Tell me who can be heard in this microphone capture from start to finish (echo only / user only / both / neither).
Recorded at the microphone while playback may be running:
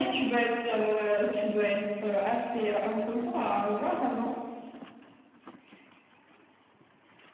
echo only